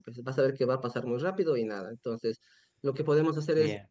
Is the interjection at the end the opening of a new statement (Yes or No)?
No